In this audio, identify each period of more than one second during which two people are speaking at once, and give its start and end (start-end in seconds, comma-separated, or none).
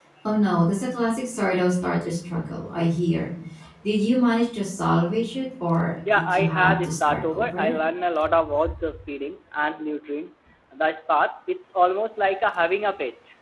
6.2-7.7